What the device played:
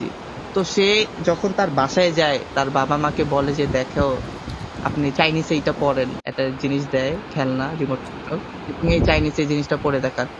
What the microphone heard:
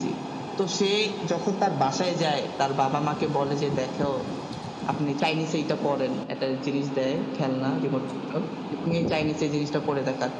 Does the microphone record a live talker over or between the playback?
No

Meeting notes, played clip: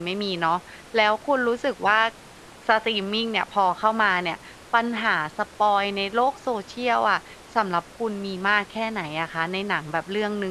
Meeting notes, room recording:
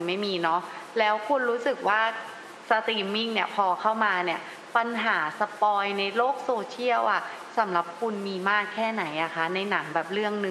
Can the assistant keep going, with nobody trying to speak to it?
Yes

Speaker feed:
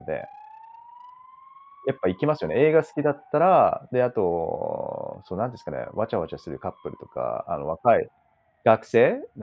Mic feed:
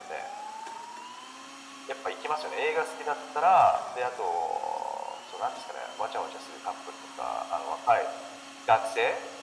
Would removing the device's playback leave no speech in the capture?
Yes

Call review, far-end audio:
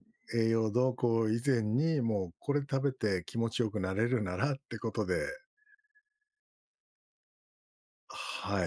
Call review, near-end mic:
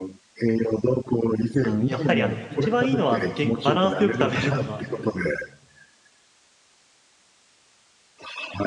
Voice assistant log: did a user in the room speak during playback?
Yes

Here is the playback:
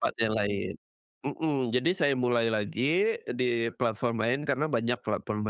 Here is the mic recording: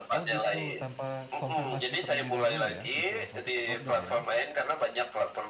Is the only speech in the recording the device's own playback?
No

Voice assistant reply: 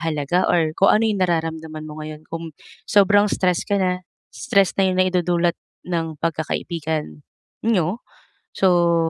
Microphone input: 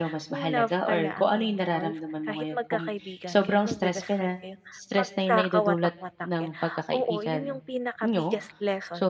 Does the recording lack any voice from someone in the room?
No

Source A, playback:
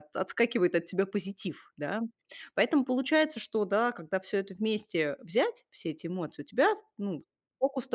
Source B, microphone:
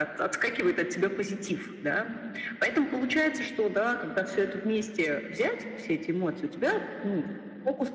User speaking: No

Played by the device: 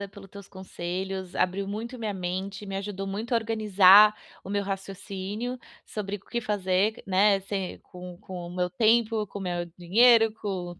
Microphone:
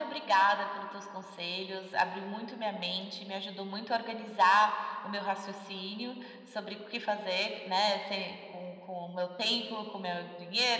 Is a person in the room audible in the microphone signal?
No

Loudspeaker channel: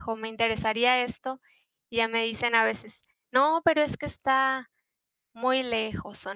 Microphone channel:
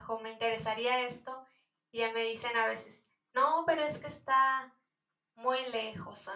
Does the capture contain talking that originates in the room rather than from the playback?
No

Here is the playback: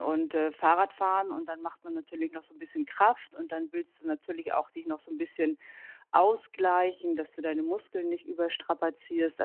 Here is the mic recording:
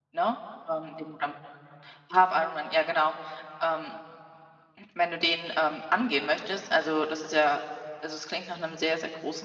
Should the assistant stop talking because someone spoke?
Yes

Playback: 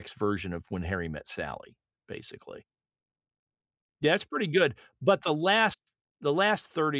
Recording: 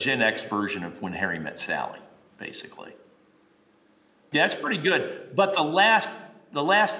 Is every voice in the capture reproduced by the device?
Yes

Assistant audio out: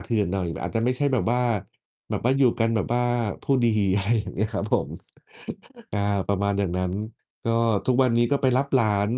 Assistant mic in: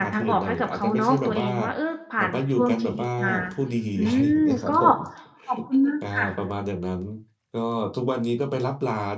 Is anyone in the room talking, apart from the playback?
Yes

